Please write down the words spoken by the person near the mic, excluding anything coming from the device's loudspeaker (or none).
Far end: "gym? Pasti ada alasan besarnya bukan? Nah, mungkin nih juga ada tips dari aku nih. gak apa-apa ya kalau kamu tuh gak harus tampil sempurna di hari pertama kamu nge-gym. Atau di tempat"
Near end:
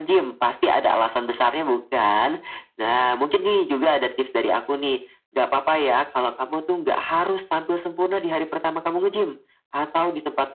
none